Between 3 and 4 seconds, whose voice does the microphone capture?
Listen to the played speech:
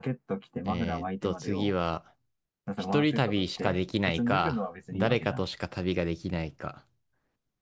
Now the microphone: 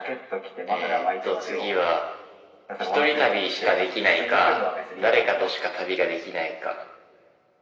echo only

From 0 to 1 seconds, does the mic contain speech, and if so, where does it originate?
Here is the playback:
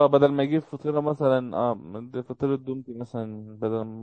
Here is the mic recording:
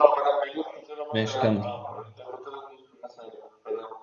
echo only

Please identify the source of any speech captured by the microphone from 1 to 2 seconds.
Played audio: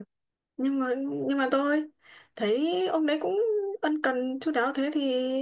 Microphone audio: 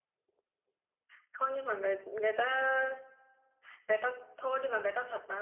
user only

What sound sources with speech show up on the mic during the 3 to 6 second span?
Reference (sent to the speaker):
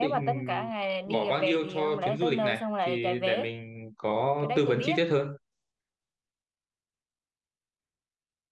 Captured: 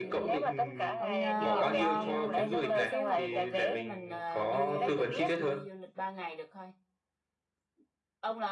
both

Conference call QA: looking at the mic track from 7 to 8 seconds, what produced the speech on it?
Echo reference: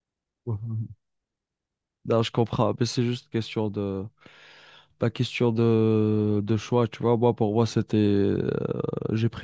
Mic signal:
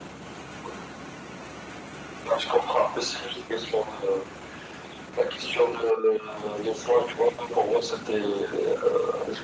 echo only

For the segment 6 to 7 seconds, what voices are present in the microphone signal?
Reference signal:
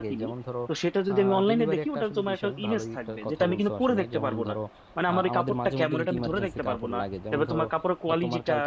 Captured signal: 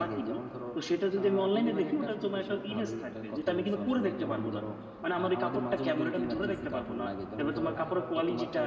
echo only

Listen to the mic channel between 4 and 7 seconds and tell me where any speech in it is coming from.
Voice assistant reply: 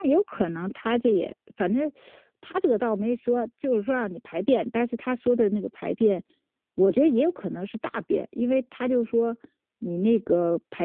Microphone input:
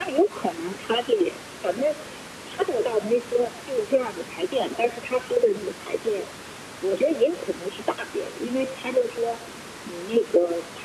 echo only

